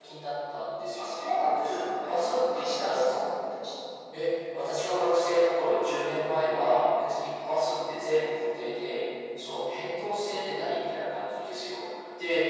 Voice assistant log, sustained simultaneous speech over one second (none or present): present